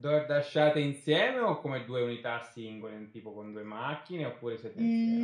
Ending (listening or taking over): taking over